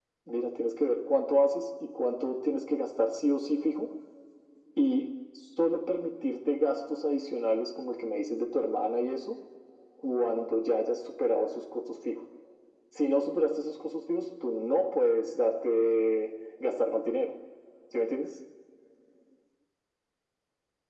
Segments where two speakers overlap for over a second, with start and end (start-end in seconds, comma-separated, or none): none